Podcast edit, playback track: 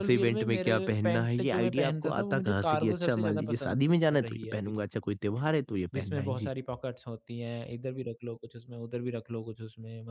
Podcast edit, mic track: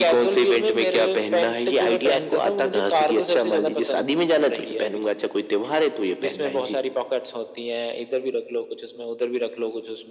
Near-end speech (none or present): none